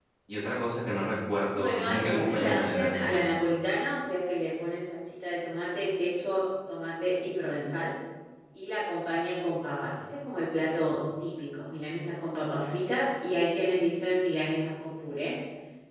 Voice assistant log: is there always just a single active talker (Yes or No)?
No